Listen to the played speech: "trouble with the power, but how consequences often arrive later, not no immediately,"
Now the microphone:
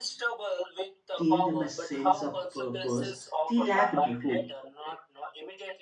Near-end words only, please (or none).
gave them a sense of purpose they lacked before